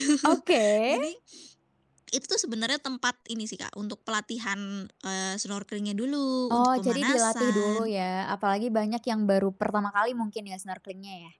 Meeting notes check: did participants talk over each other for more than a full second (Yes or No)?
Yes